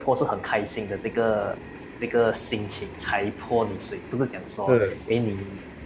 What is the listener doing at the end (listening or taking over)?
listening